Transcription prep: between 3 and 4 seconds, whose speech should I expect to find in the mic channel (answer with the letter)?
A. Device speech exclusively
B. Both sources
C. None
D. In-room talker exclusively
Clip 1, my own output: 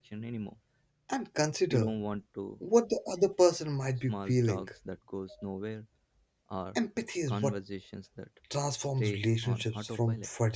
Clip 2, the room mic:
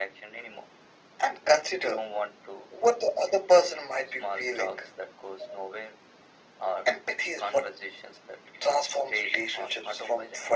A